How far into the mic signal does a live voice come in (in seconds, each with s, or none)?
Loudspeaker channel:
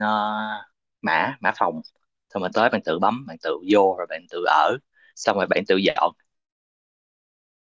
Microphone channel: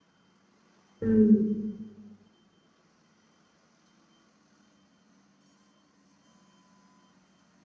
1.0 s